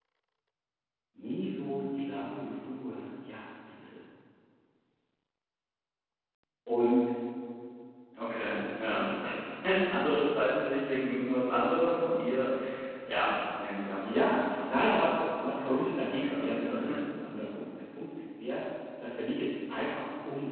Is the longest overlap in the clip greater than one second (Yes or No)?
Yes